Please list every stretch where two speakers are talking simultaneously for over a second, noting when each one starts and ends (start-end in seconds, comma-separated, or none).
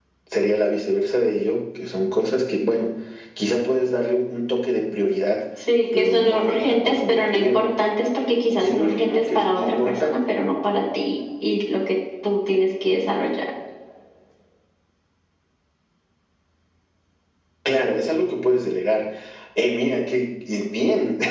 5.9-7.6, 8.6-10.2